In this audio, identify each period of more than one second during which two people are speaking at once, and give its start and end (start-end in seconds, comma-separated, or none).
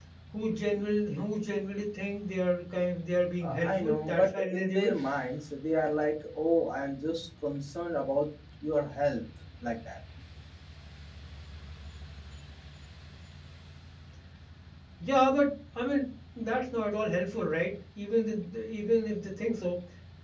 3.4-5.0